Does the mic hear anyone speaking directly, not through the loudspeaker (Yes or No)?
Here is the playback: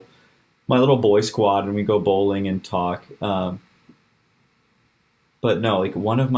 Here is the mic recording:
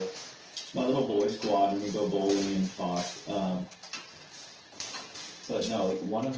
No